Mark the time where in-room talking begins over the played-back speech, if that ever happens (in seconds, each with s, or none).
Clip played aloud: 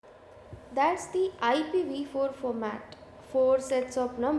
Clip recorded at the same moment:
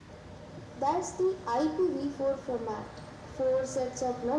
none